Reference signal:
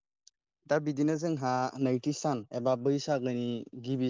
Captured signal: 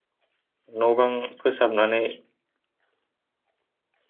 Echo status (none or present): none